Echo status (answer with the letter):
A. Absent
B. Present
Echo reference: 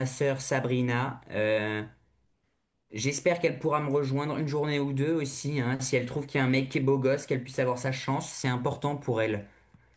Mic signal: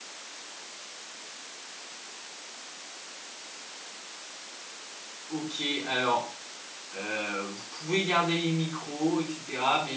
A